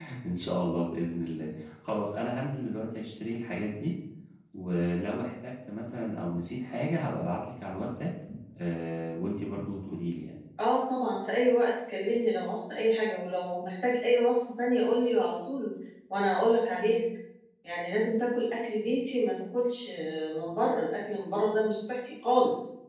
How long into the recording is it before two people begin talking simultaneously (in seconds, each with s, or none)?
none